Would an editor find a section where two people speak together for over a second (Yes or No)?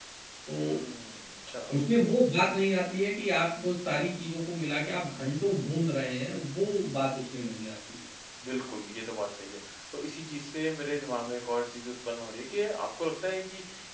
No